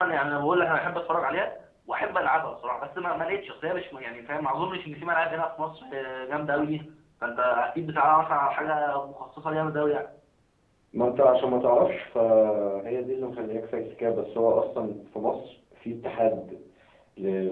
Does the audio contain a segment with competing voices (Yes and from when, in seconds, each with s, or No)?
No